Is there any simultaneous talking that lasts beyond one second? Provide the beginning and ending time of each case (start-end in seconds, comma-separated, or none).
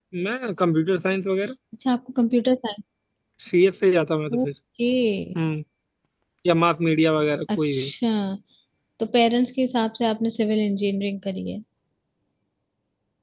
none